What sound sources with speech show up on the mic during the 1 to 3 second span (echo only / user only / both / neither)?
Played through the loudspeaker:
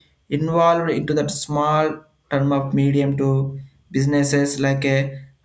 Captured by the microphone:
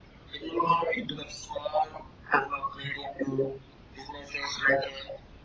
echo only